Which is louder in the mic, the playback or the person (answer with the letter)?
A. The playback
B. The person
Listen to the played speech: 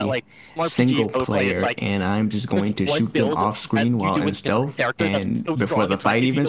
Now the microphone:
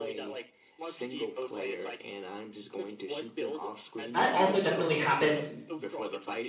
B